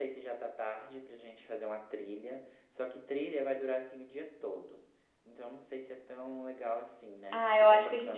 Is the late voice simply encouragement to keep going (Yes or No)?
No